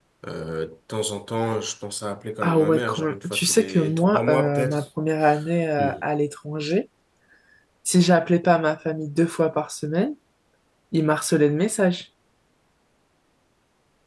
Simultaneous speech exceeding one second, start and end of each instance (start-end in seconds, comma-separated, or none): 2.4-4.8